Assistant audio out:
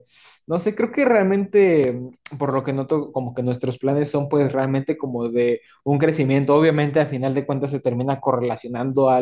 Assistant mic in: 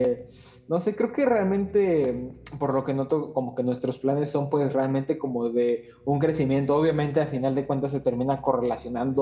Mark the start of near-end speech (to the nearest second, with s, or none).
none